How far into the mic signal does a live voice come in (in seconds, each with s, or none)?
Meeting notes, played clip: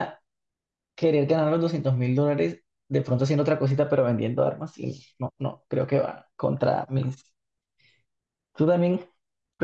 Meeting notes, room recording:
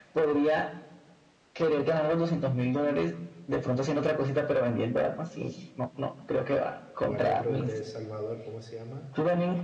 7.0 s